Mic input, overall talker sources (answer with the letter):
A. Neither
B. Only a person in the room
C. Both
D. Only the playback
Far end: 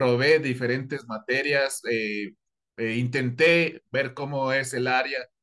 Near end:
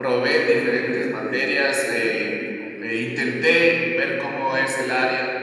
C